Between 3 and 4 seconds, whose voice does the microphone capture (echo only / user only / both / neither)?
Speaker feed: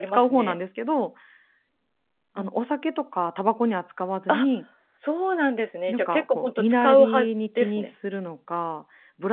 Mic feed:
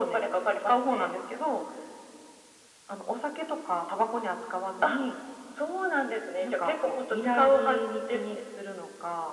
echo only